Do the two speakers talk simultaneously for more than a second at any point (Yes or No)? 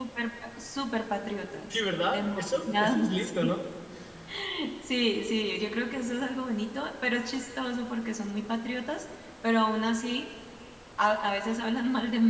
Yes